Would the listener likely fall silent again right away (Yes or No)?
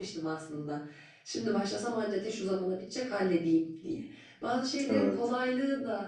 Yes